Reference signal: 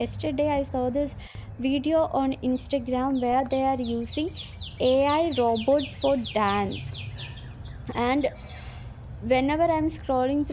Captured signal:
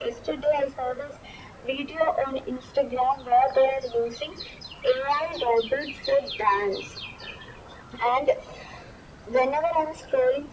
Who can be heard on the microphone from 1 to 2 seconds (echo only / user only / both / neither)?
echo only